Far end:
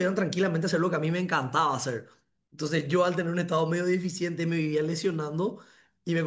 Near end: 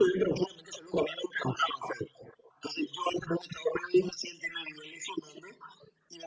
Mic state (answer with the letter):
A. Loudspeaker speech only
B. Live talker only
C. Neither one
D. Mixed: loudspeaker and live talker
A